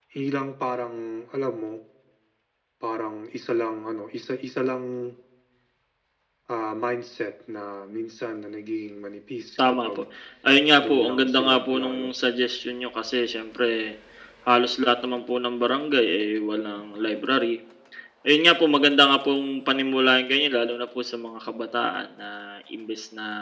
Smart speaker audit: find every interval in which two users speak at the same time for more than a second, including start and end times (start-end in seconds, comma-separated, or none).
10.8-12.1